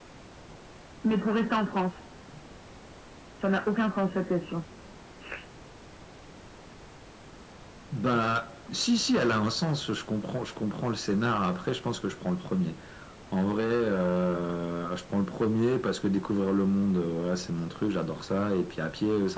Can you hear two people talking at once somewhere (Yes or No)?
No